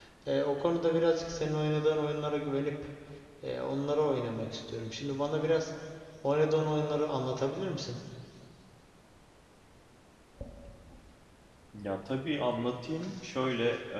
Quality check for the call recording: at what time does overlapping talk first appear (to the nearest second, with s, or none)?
none